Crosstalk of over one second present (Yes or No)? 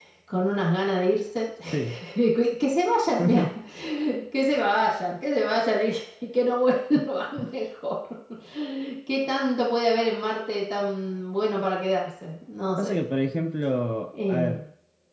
No